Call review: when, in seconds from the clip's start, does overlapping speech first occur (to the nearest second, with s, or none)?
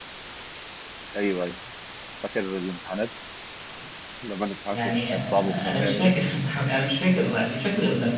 5 s